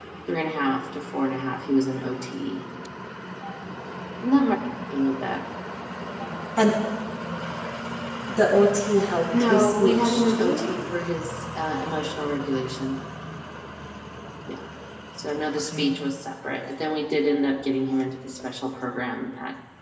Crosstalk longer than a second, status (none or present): present